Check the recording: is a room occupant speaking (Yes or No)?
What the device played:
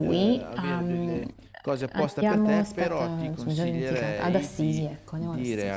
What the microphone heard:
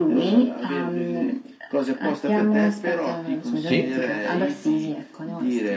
Yes